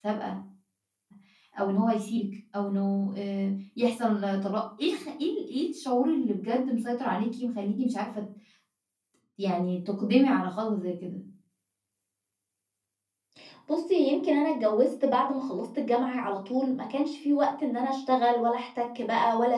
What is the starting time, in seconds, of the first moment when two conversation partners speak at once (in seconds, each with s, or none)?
none